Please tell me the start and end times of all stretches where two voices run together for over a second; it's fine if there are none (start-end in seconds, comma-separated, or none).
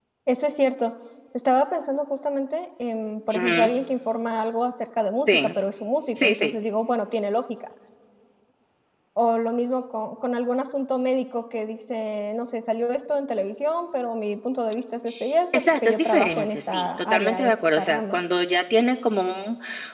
15.5-18.2